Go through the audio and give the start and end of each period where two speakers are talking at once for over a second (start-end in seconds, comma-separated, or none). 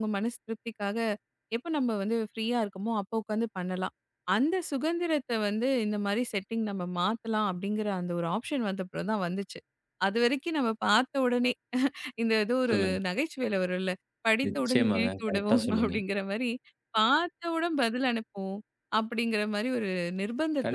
14.5-15.9